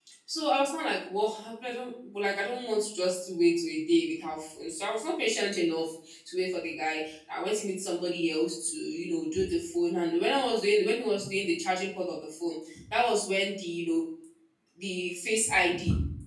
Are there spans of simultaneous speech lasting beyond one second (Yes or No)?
No